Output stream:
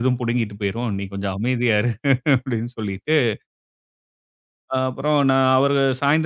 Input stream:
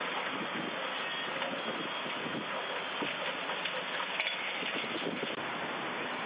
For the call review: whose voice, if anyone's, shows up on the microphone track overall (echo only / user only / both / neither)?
neither